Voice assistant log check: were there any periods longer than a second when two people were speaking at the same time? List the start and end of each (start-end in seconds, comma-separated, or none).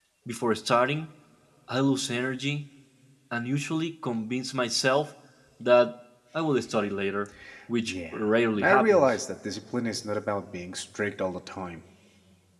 7.8-9.2